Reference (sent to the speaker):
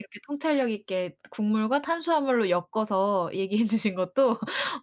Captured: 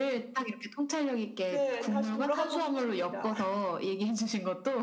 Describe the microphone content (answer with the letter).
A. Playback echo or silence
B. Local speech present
B